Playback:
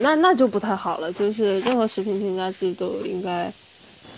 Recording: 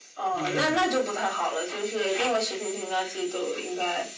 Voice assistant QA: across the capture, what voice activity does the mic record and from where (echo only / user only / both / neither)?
both